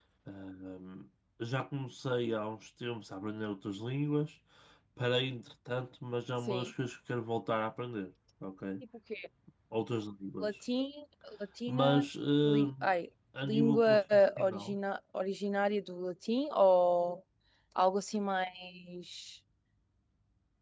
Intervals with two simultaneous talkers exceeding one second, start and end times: 13.4-14.8

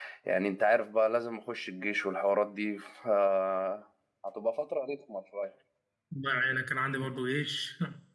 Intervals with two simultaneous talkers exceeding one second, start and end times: none

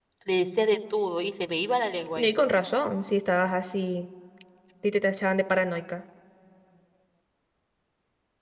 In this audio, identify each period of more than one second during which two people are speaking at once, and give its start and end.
none

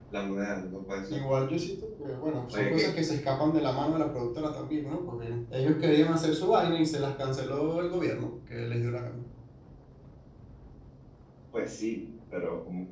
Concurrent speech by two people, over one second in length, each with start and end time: none

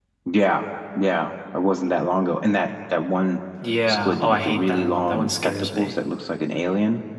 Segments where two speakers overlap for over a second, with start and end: 3.9-5.9

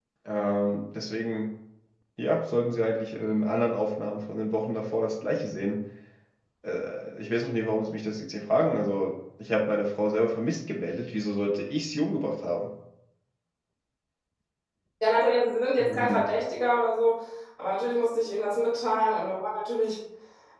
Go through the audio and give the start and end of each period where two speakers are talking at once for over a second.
none

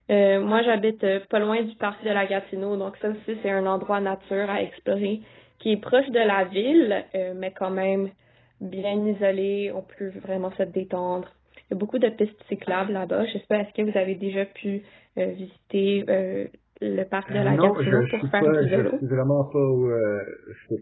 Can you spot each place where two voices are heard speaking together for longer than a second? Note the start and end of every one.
17.3-19.0

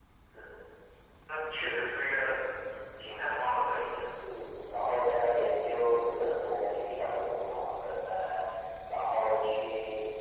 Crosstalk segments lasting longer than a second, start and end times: none

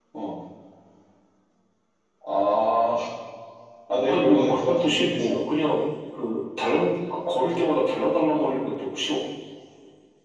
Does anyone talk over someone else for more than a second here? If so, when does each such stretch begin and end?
4.1-5.4

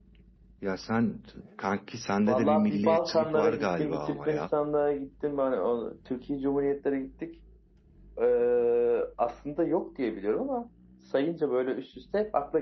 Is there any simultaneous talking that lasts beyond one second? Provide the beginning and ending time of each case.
2.3-4.4

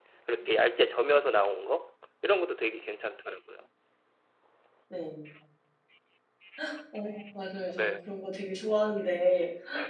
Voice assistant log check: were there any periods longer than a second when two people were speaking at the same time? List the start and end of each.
none

